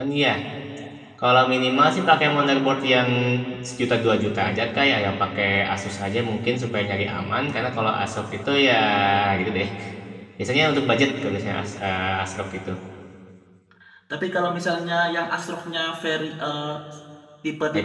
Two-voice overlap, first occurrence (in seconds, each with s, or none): none